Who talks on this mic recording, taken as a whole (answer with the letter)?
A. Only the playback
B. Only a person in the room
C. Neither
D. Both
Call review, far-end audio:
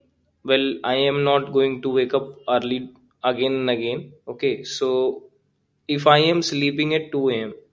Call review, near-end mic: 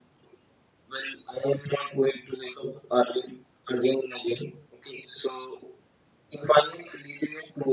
A